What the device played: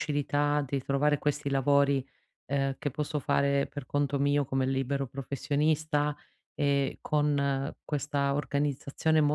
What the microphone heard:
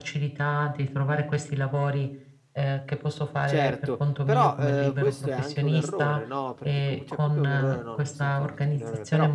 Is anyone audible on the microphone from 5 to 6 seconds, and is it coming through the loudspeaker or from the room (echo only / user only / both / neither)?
both